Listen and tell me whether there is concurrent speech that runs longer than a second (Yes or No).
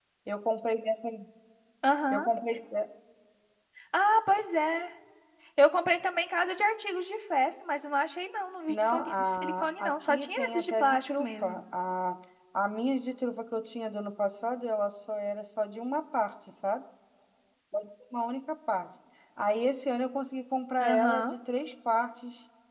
Yes